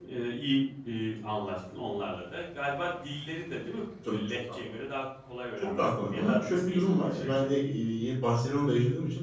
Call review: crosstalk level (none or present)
present